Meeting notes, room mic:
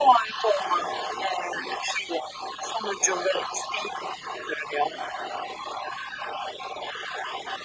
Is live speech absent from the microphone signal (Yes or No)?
Yes